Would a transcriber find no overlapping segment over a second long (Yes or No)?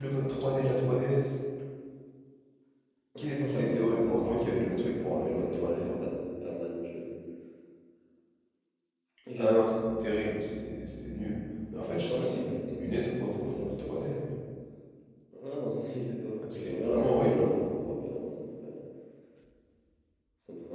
No